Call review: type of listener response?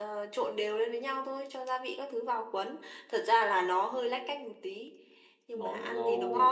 taking over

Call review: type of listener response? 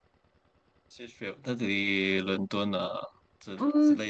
taking over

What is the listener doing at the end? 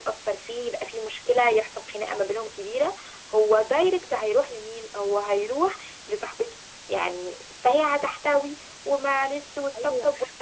taking over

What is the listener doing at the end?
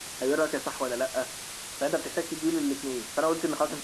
listening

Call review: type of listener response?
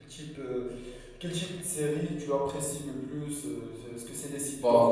listening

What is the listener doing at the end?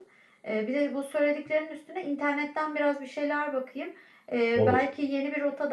listening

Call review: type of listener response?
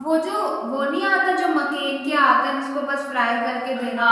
taking over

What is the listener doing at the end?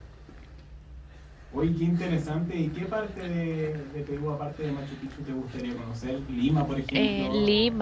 taking over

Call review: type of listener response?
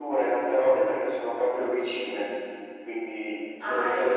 listening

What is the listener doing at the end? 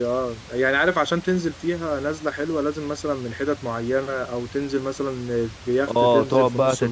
taking over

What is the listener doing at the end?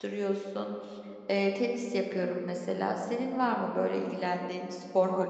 taking over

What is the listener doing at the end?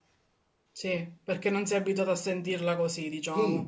taking over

